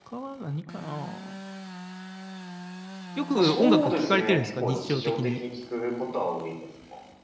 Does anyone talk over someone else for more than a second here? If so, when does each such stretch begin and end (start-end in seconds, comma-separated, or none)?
3.4-5.4